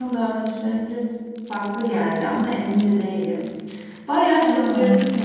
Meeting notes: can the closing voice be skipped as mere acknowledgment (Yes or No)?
Yes